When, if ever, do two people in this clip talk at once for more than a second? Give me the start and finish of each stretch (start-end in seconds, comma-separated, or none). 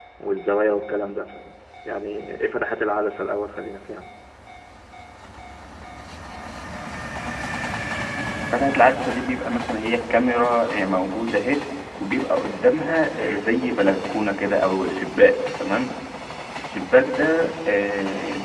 none